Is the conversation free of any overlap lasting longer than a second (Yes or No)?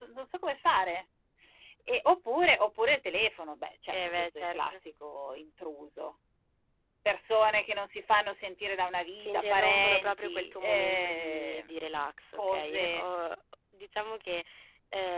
No